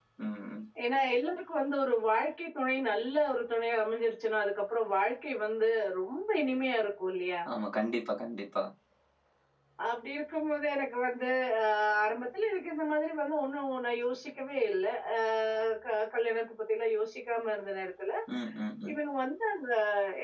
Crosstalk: none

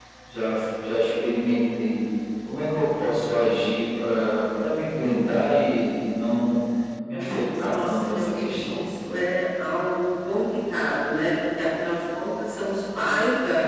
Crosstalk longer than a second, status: present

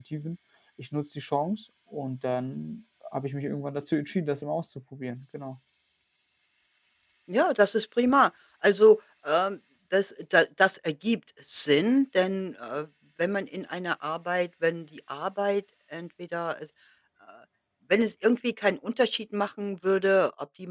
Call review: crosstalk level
none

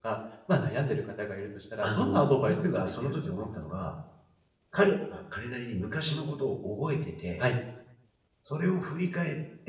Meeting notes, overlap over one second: present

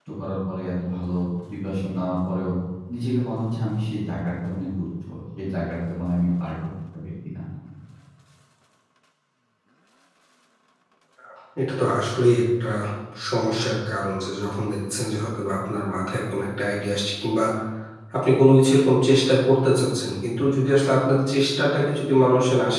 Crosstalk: none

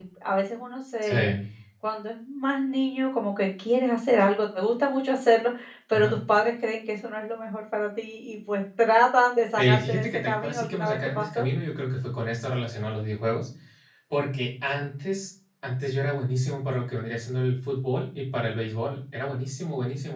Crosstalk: present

